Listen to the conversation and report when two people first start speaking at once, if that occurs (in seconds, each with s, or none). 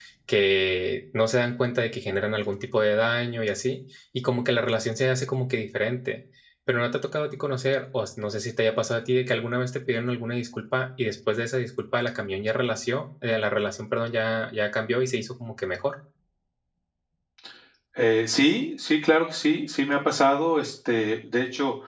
none